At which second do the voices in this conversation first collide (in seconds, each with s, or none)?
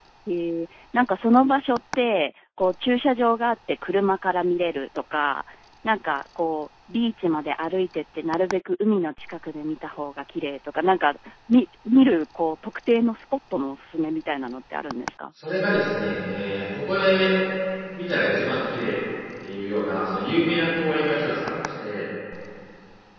none